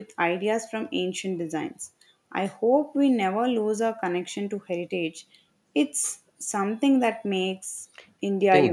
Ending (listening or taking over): taking over